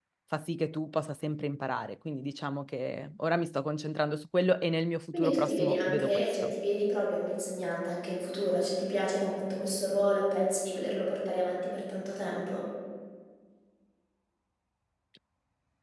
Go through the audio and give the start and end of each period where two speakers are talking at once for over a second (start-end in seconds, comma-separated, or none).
5.1-6.5